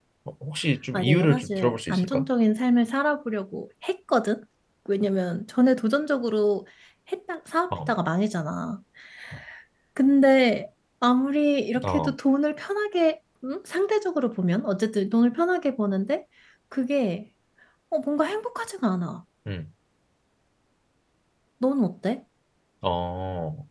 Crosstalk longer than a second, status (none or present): present